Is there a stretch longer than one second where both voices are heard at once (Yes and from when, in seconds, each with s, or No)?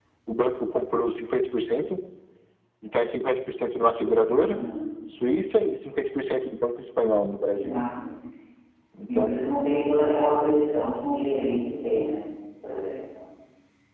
No